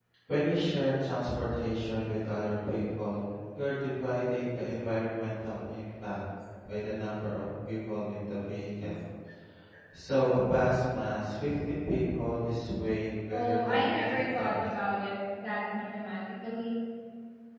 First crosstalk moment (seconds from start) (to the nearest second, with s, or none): 13 s